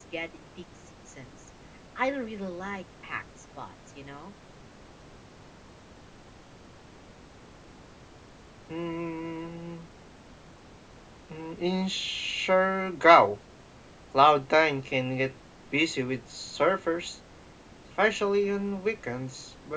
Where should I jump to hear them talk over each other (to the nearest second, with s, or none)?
none